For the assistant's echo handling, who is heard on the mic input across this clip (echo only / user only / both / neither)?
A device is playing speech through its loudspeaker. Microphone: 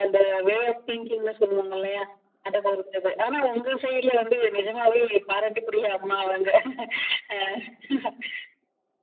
echo only